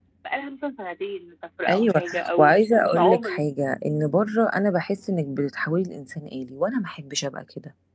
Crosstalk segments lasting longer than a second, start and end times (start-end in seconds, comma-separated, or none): 1.7-3.4